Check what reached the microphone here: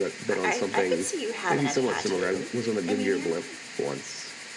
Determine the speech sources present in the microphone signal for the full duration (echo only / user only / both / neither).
both